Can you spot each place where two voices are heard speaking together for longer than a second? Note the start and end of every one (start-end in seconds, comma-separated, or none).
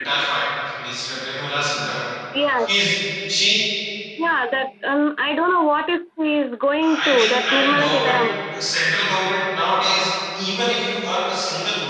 6.8-8.3